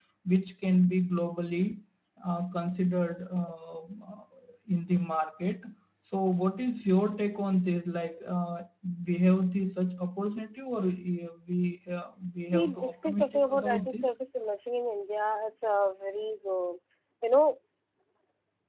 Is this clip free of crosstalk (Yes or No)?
No